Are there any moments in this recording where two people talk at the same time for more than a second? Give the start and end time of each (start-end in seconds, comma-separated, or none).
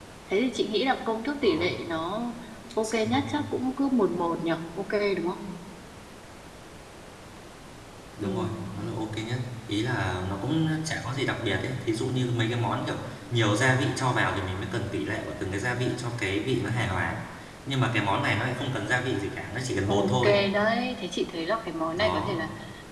none